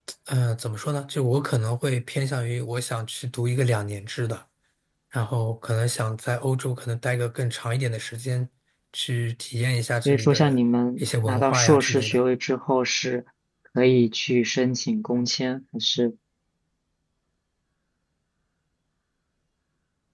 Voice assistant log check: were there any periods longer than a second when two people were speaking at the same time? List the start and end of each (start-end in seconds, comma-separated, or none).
11.0-12.2